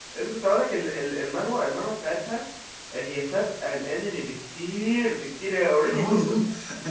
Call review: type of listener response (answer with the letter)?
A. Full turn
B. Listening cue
A